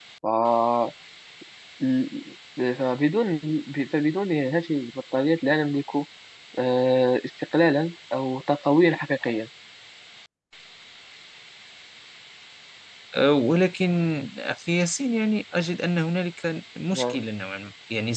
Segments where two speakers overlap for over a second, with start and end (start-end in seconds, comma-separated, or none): none